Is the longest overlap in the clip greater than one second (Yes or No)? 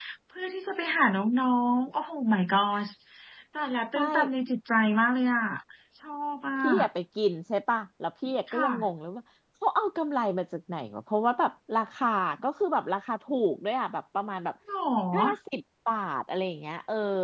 No